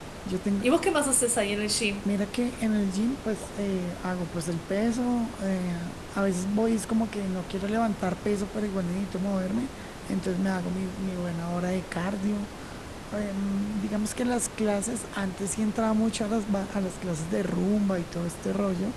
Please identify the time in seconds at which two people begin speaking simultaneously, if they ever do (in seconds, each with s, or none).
none